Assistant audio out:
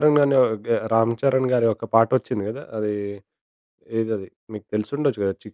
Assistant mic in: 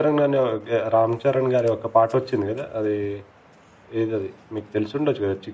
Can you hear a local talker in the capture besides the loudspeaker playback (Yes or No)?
No